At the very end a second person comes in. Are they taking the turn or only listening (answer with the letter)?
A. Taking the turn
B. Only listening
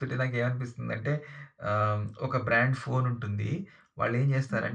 B